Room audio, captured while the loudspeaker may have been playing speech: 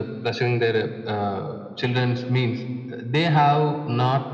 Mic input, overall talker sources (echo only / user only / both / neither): echo only